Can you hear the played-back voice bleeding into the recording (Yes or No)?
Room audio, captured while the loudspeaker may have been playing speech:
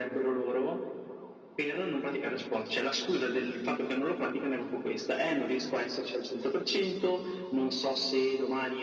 Yes